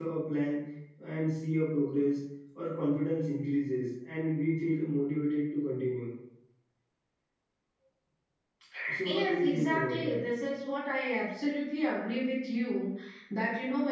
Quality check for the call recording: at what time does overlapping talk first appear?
9.0 s

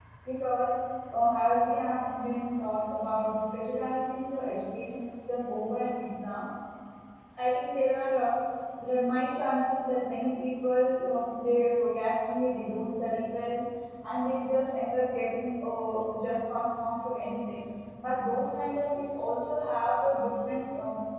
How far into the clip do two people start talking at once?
none

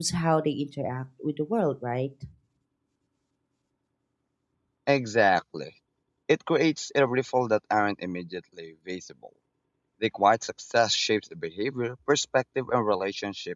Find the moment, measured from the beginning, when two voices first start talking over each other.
none

